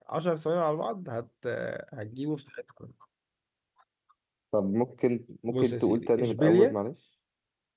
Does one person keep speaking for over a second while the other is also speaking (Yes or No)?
Yes